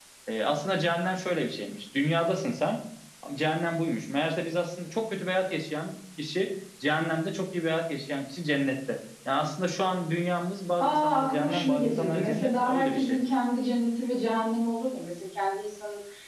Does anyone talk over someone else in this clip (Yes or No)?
Yes